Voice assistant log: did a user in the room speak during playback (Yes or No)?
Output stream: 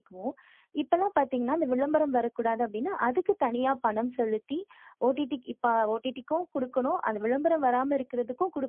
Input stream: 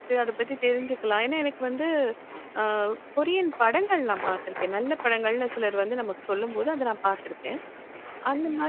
Yes